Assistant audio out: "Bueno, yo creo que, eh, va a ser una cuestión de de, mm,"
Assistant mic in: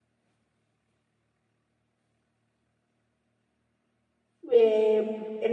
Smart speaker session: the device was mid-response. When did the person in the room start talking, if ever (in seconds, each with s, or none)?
4.5 s